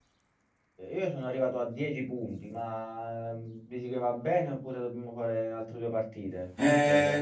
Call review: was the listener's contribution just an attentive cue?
No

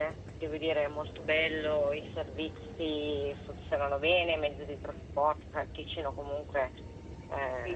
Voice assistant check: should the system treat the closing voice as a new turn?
No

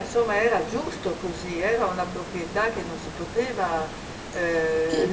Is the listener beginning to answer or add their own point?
Yes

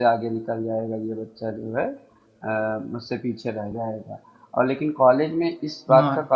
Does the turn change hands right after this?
No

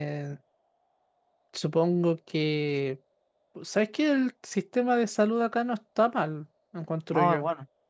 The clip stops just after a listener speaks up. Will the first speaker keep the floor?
No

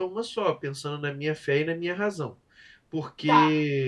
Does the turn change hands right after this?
No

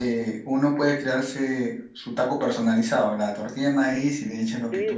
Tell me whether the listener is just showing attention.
No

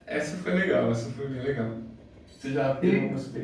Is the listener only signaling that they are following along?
Yes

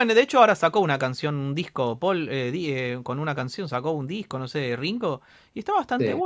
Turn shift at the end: No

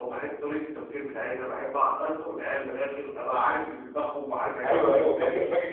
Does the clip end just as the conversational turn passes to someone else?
Yes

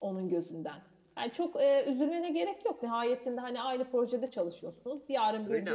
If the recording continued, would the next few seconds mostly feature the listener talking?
No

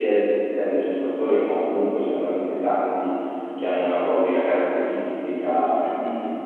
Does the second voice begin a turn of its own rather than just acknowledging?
Yes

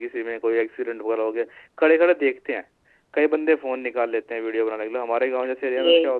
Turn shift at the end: No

